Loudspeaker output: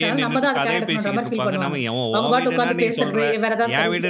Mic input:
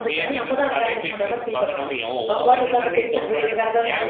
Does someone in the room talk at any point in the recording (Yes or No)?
No